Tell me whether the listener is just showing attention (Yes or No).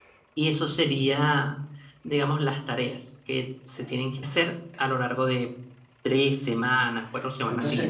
No